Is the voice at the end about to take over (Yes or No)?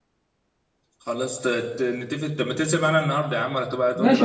Yes